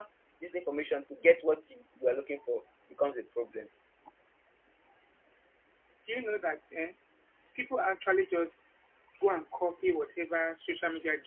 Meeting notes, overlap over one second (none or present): none